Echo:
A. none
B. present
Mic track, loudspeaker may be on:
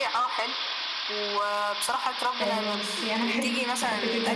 B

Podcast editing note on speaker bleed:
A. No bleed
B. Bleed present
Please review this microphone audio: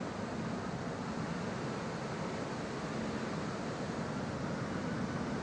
A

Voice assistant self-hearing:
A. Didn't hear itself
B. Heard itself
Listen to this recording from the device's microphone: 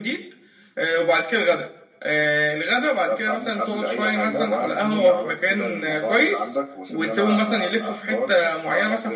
B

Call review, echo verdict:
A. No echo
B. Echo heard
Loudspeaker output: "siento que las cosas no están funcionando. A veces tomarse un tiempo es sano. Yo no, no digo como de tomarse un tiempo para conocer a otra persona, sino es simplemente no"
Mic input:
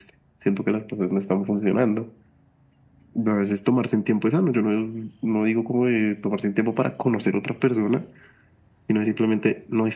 B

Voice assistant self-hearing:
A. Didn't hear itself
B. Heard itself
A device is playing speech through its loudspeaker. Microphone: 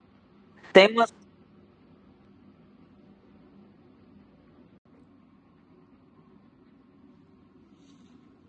A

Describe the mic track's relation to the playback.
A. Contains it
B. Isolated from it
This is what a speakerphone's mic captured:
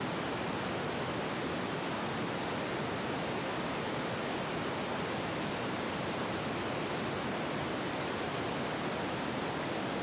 B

